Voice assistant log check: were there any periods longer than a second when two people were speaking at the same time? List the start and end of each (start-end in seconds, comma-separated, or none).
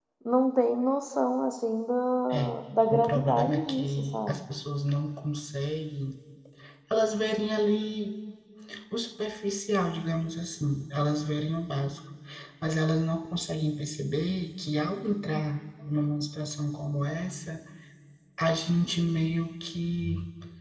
2.9-4.4